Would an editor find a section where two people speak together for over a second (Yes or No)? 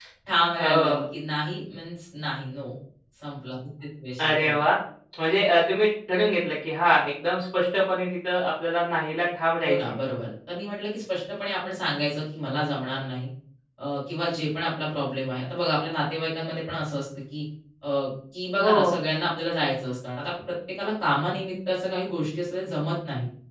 No